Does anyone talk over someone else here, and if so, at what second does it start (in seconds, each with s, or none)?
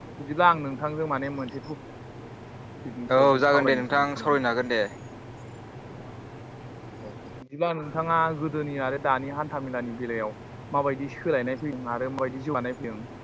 3.1 s